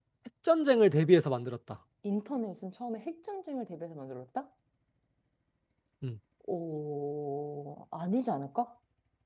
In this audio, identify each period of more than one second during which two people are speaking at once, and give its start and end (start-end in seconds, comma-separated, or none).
none